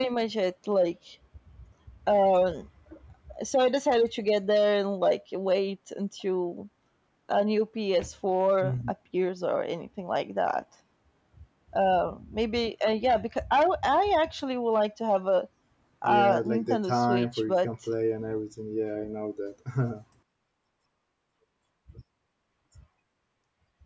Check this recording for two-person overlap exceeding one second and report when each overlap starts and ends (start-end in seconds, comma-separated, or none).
16.0-17.7